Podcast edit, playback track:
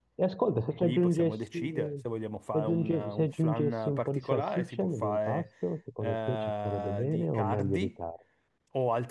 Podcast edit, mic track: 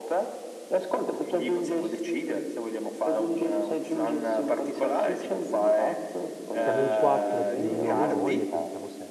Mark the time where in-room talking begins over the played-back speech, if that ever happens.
6.6 s

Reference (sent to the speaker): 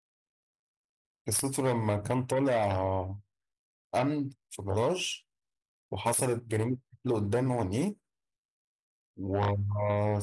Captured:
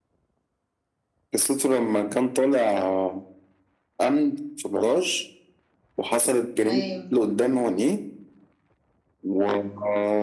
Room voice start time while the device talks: 6.6 s

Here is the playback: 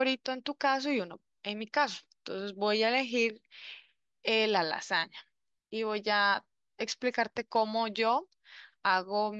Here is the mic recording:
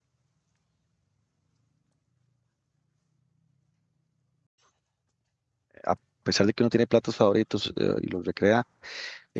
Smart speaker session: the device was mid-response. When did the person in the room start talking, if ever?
5.8 s

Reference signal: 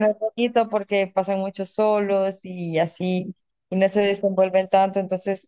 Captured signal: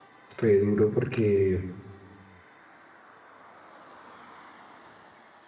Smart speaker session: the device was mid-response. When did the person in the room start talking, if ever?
0.4 s

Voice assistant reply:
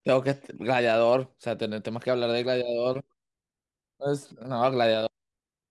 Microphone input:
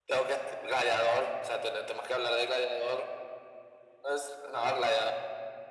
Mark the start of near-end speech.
none

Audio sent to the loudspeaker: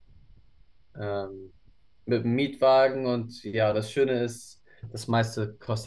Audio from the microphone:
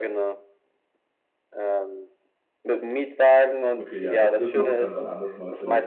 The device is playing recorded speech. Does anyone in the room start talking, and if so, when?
3.8 s

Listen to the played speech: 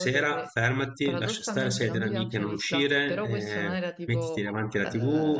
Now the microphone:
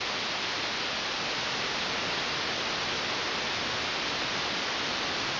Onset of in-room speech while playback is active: none

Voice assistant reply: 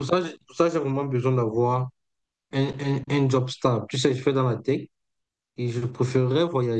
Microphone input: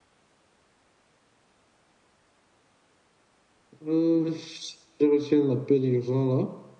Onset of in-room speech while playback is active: 3.8 s

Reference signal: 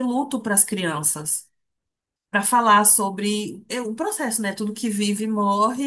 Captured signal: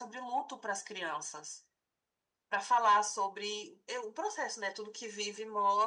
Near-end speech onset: none

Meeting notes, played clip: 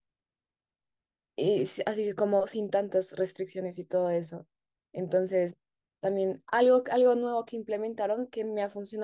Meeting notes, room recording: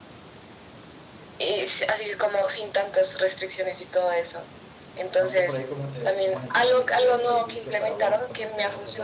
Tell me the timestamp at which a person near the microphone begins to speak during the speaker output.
5.2 s

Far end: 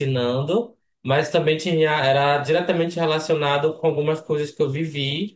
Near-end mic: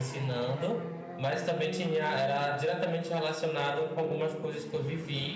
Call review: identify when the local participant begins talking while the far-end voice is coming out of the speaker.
none

